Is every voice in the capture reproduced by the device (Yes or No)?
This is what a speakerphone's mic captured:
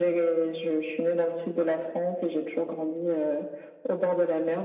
Yes